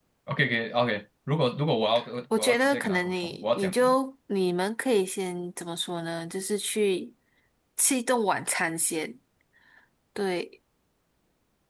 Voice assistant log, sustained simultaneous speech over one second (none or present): present